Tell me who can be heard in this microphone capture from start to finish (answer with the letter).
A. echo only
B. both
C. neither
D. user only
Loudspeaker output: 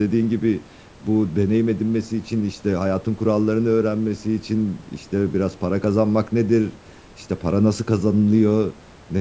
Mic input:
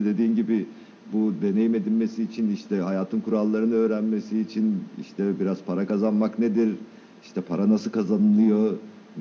A